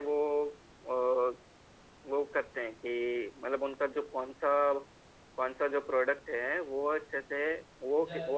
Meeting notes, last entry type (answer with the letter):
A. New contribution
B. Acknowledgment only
B